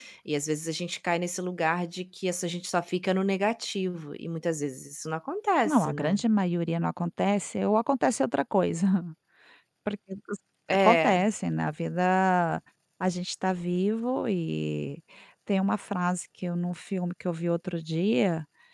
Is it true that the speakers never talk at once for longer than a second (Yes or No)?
Yes